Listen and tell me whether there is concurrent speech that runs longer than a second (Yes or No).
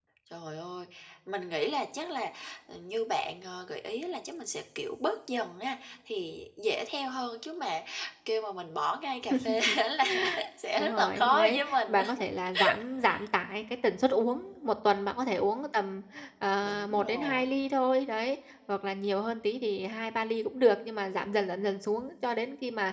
Yes